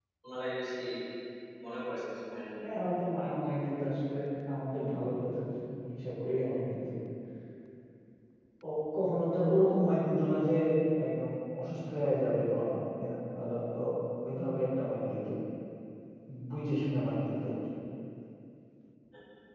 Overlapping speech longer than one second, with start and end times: none

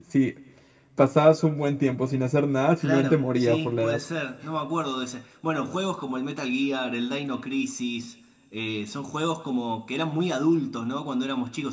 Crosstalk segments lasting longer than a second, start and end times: 2.8-4.0

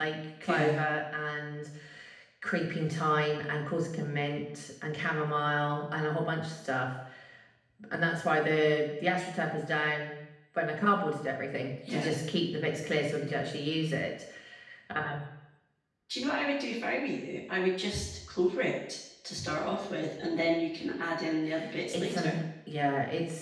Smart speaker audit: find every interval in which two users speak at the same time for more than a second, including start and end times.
none

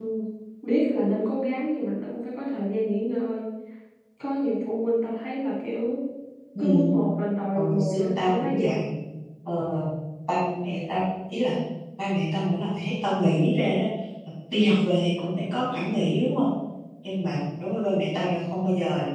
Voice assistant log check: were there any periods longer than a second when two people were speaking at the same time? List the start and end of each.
7.5-8.8

